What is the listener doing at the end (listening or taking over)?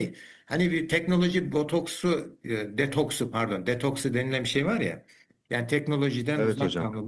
listening